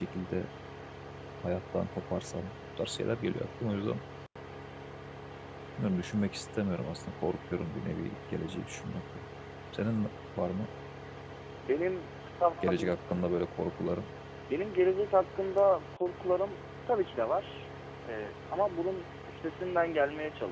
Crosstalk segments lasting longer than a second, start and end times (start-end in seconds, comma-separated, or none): none